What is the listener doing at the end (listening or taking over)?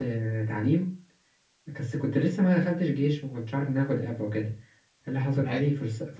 listening